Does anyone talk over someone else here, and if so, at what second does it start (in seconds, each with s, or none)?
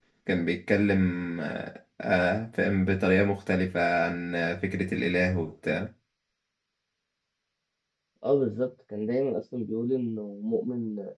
none